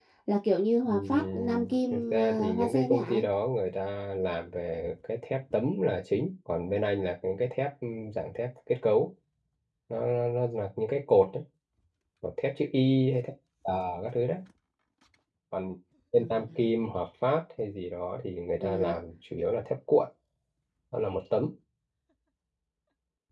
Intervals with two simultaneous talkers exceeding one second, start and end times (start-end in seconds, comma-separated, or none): 0.9-3.3